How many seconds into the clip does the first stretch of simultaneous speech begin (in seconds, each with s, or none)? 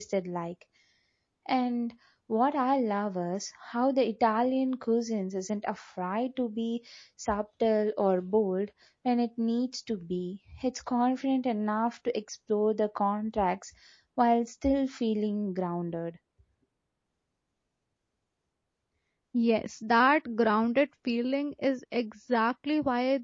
none